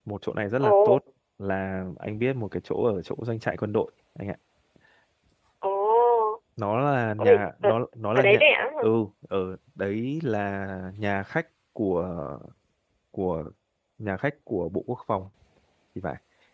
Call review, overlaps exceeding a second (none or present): none